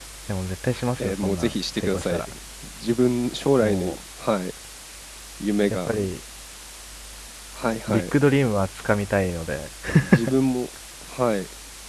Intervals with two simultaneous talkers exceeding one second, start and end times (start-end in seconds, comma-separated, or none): 1.0-2.2